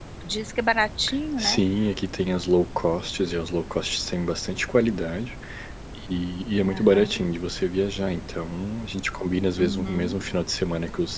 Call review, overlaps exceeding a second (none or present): none